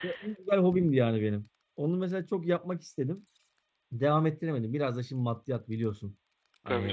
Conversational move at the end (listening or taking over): listening